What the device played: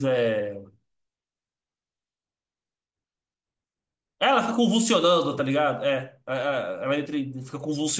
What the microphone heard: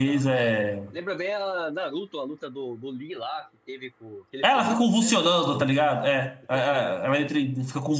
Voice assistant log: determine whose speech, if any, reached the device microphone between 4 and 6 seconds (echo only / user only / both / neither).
both